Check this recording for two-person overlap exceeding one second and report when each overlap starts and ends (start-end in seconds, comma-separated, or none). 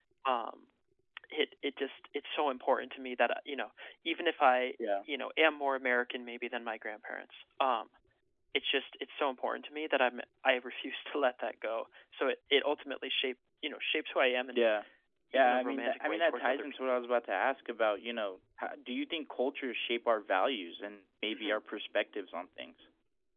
15.3-16.8